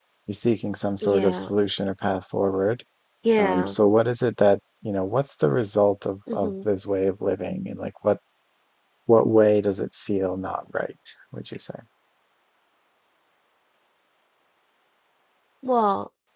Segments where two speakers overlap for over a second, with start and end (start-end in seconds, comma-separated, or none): none